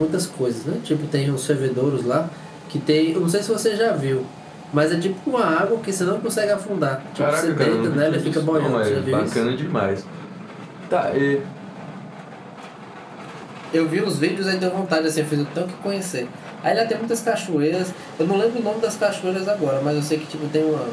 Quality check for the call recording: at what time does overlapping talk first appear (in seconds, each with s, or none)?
7.2 s